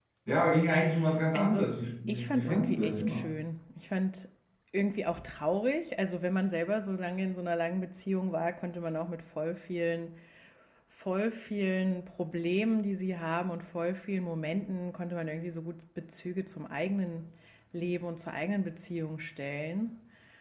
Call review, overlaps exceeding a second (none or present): present